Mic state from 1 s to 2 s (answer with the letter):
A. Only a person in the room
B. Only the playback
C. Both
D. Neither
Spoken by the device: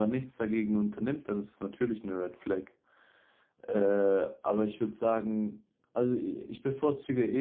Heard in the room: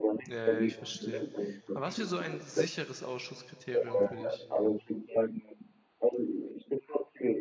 C